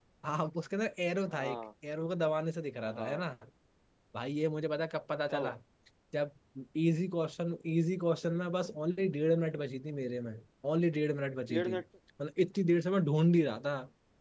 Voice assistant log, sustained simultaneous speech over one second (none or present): none